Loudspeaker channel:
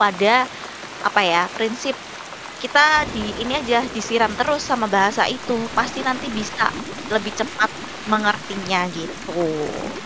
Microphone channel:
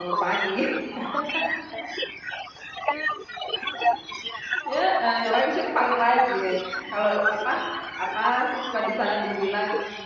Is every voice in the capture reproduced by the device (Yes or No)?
No